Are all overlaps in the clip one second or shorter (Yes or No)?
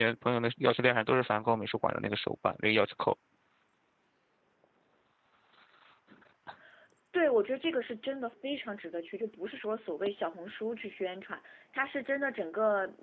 Yes